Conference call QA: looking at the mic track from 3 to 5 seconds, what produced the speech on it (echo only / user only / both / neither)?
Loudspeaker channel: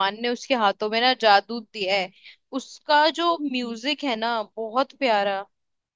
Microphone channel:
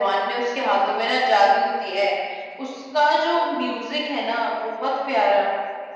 echo only